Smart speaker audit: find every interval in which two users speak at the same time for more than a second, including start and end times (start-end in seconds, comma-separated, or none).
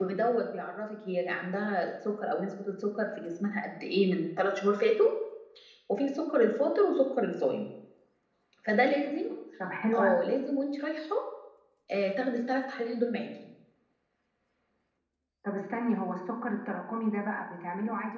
none